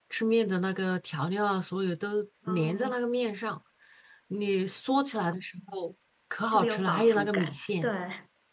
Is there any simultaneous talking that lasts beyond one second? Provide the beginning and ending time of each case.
6.5-7.9

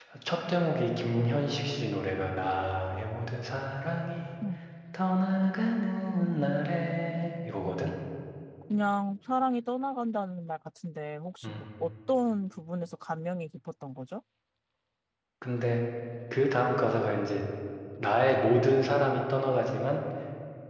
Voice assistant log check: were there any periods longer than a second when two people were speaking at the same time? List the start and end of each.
none

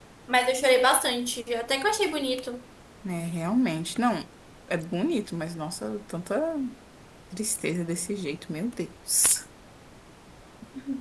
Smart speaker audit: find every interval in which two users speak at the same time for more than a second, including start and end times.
none

